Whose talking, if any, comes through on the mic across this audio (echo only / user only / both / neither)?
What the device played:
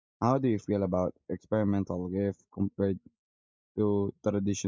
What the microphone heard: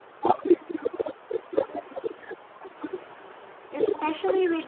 both